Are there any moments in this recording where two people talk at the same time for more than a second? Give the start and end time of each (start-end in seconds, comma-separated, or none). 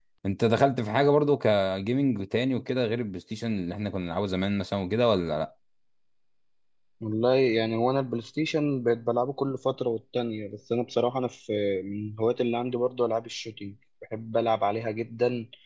none